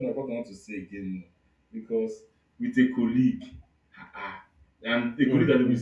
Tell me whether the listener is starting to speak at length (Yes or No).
No